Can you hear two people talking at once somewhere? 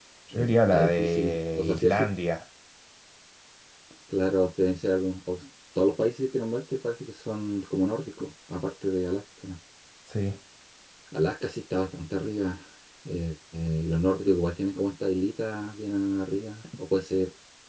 Yes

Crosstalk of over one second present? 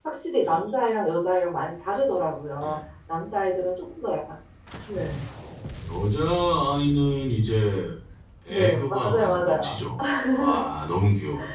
Yes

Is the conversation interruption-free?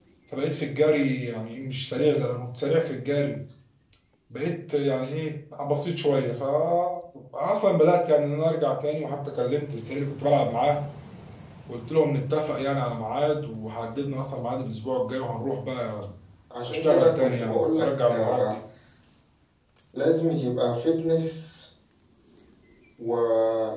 No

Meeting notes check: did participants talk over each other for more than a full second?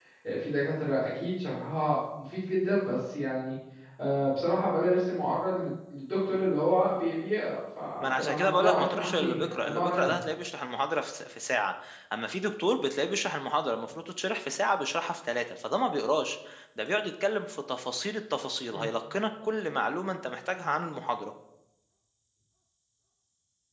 Yes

